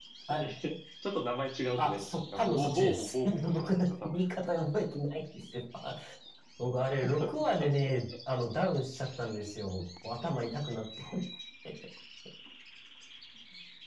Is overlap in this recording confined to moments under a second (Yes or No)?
No